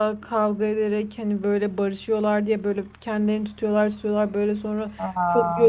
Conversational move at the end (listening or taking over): listening